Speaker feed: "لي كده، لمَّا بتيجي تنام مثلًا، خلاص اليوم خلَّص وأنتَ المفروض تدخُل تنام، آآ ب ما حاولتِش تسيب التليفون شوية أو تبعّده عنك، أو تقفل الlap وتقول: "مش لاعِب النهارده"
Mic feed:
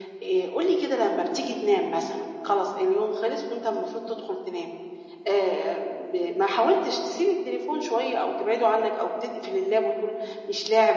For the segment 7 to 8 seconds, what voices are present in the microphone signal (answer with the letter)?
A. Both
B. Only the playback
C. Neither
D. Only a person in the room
B